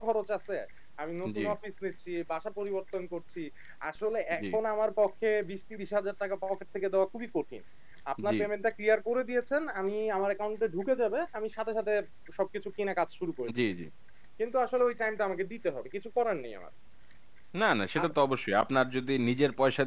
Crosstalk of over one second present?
No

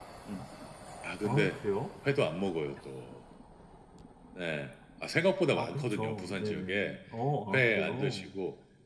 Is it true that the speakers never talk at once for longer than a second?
No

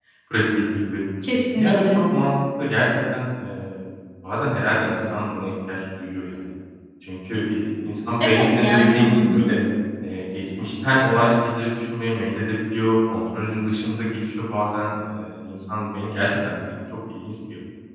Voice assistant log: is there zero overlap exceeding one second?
No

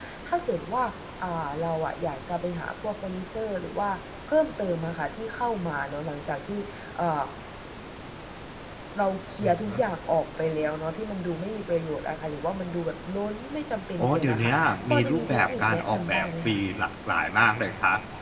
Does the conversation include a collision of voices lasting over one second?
Yes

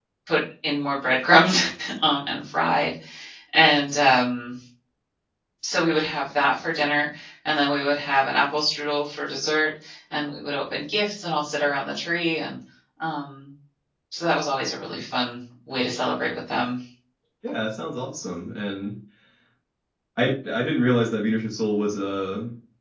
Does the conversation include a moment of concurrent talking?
No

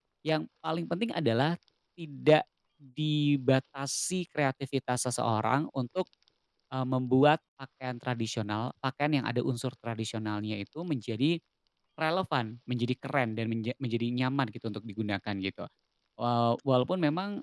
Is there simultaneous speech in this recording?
No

